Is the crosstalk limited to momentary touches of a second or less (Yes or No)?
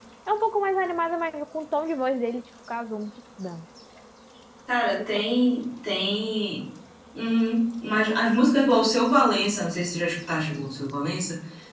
Yes